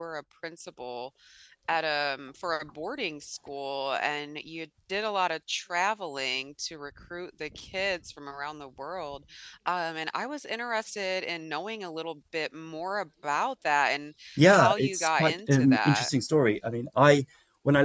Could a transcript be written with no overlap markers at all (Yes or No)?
No